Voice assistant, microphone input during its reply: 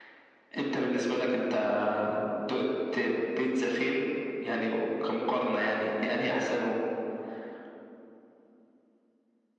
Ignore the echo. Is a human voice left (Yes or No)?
No